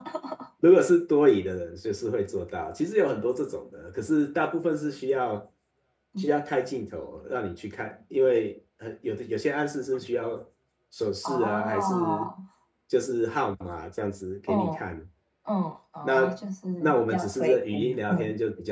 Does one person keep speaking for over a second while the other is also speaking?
Yes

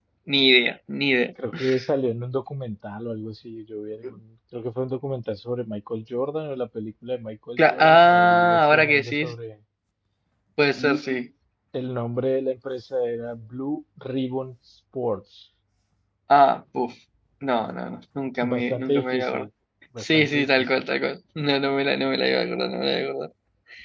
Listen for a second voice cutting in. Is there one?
Yes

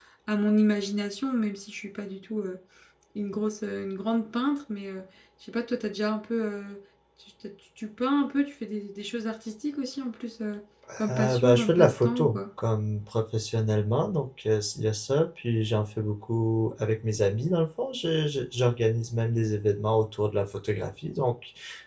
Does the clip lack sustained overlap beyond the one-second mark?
No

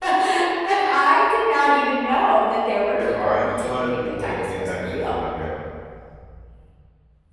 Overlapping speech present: Yes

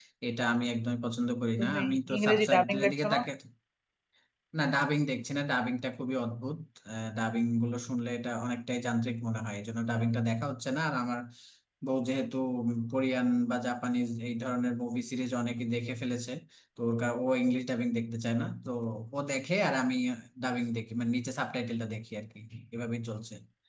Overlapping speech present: Yes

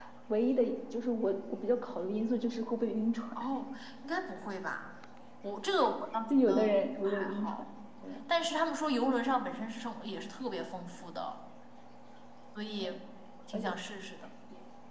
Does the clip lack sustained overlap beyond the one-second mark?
No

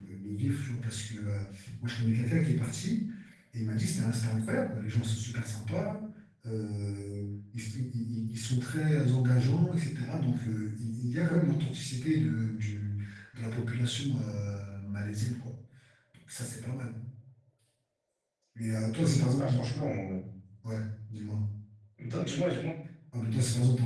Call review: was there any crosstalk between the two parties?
No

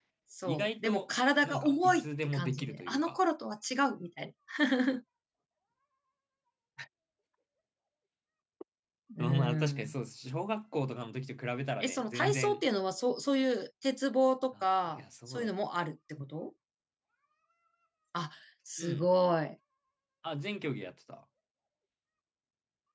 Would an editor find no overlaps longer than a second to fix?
No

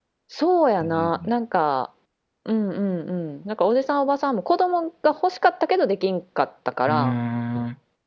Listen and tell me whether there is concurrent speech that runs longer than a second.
No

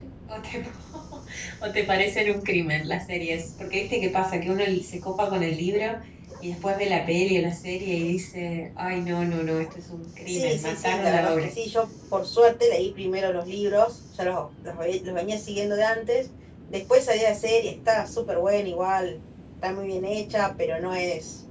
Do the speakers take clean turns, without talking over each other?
No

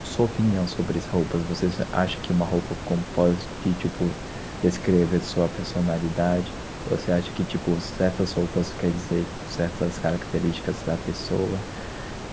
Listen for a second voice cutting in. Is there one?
No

